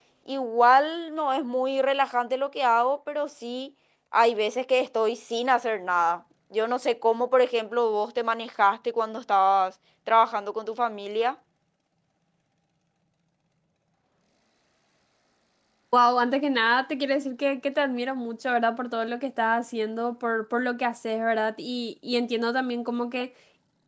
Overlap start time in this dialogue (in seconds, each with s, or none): none